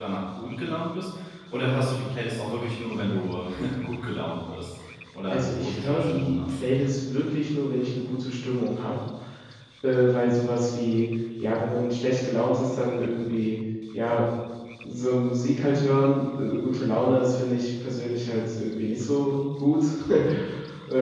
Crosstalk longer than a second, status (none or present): present